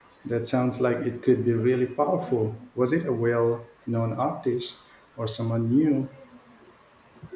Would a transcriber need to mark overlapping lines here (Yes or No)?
No